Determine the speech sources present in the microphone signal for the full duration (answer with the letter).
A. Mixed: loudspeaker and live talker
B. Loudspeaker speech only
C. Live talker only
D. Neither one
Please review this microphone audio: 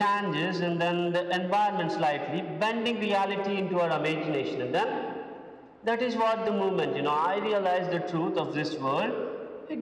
B